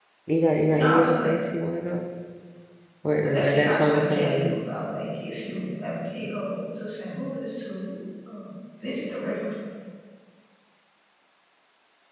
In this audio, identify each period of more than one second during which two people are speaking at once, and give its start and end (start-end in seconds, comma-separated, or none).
3.3-4.6